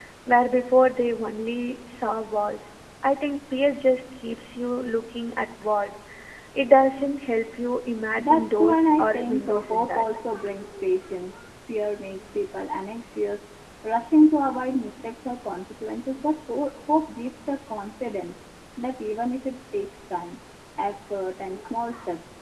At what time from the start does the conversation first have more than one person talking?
8 s

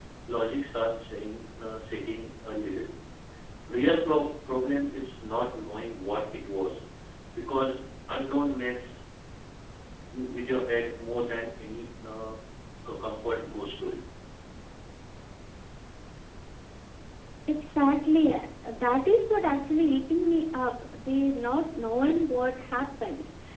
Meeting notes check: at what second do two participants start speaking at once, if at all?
none

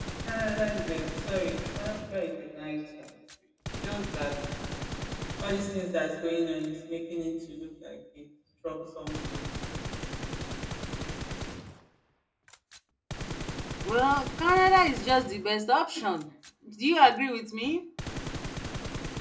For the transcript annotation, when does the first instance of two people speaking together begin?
none

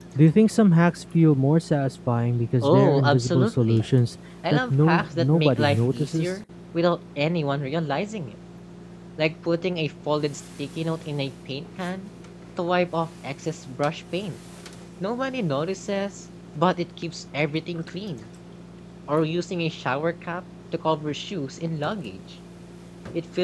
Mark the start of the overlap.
3 s

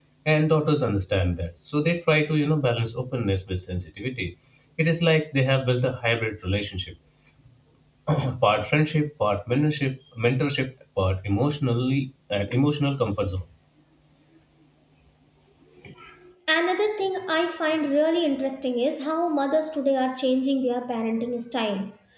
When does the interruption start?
none

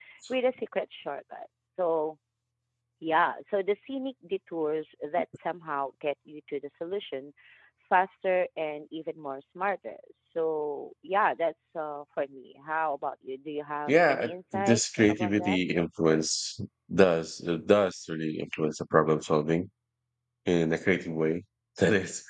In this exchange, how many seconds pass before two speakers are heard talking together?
14 s

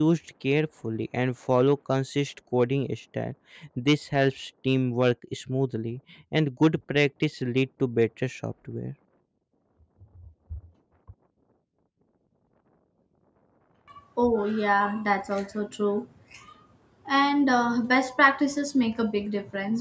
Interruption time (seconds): none

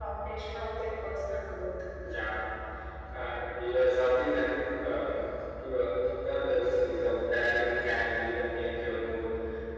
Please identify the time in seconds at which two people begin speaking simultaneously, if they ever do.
none

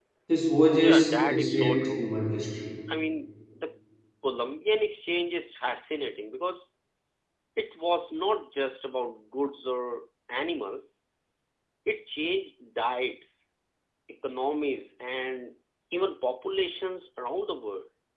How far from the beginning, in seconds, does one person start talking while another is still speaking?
1 s

